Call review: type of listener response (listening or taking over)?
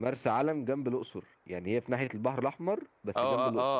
taking over